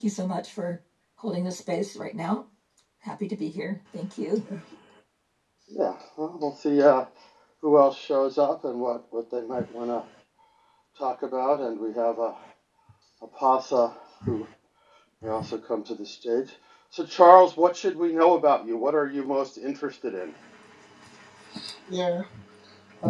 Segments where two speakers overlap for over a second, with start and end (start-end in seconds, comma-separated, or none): none